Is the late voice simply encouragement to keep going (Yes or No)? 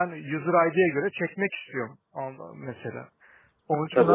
No